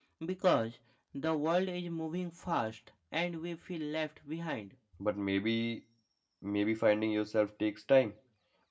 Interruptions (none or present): none